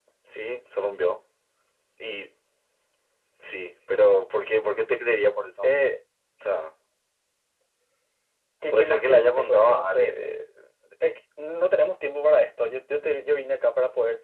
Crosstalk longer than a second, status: present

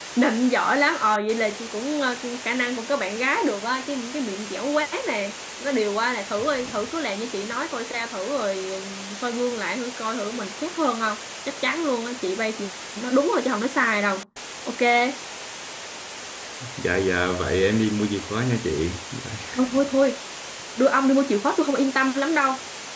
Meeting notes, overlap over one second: none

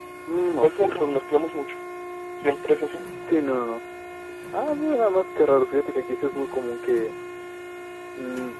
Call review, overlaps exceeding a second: none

